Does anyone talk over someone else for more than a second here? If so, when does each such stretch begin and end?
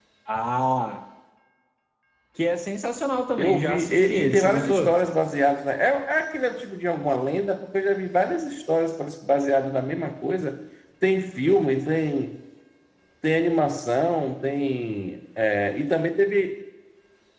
3.4-4.9

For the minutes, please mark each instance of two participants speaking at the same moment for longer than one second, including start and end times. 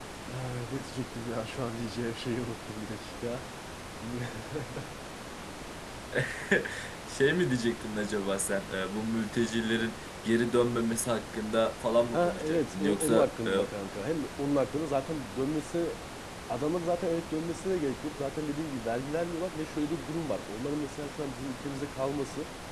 12.1-13.5

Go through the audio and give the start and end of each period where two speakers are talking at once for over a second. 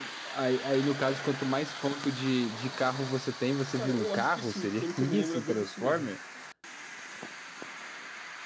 3.7-6.1

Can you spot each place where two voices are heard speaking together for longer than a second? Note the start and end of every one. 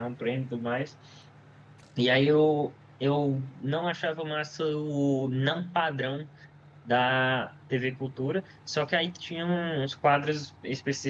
none

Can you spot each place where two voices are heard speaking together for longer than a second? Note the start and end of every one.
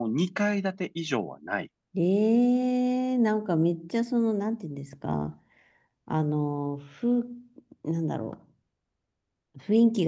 none

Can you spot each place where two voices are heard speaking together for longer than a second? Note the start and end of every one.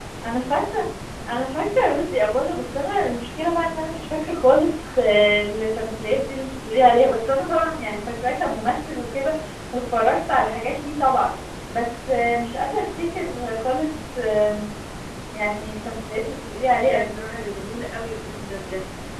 none

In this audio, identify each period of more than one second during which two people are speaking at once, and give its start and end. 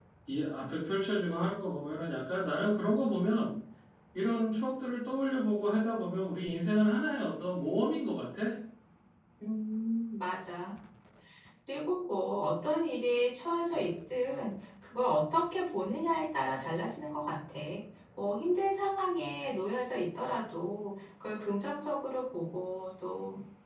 none

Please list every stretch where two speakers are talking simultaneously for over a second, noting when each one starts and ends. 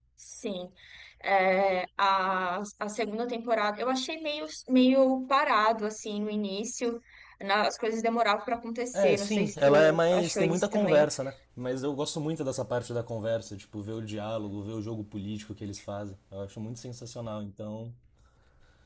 8.9-11.1

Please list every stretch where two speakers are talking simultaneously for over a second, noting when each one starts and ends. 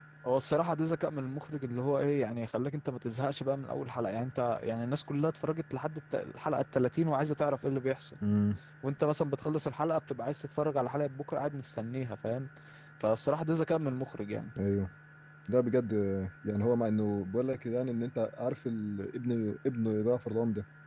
none

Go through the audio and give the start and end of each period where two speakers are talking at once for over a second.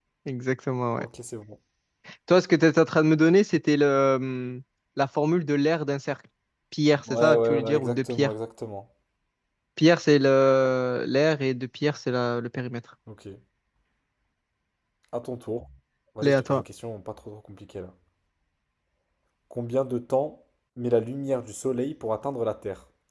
7.1-8.3

